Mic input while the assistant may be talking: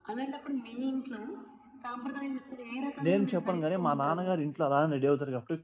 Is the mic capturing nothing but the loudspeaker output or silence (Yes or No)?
No